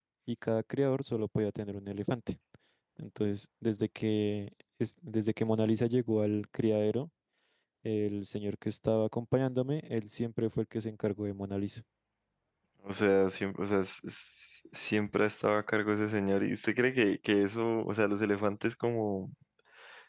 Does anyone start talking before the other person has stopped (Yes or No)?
No